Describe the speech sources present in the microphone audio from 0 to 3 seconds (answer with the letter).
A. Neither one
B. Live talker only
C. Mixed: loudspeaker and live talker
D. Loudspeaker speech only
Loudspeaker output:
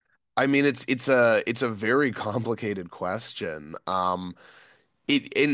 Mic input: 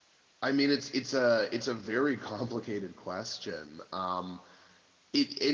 D